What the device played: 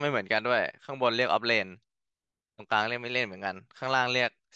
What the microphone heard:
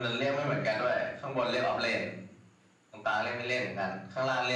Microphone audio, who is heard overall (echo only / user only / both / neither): echo only